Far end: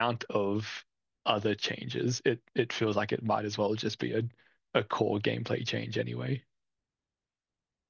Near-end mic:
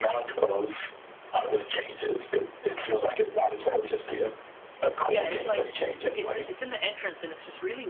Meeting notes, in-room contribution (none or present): present